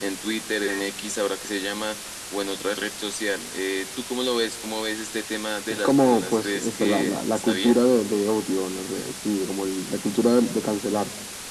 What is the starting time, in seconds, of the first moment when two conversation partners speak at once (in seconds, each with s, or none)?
5.7 s